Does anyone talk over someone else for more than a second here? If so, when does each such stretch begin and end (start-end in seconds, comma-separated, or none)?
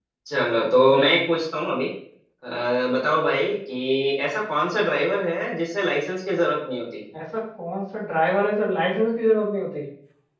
none